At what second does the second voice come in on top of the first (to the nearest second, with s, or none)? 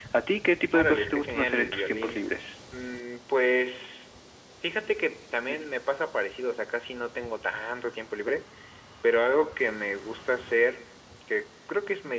1 s